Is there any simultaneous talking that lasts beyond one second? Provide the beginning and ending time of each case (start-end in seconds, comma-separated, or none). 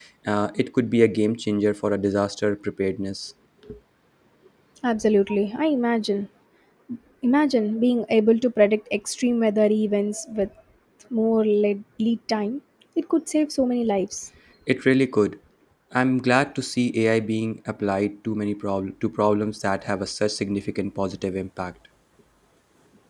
none